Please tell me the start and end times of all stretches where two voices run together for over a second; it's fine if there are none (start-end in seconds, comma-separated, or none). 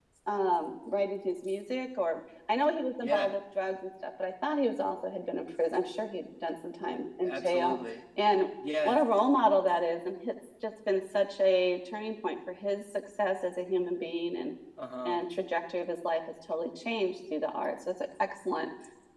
none